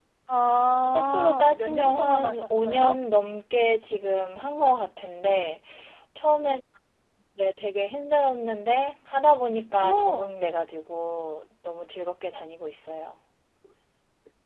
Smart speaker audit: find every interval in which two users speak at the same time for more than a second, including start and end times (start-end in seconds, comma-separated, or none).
0.9-3.0